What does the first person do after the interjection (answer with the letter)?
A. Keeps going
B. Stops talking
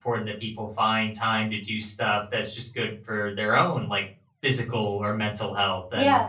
B